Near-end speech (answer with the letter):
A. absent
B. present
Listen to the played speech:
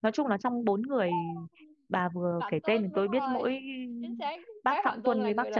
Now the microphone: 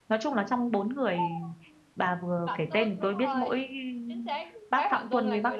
A